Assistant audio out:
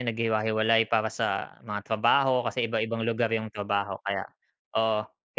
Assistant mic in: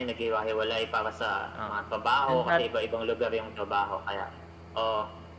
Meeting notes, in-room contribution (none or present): present